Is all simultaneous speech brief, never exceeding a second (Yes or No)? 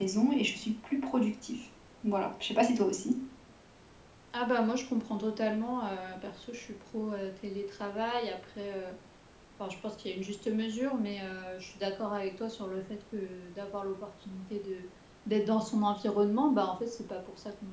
Yes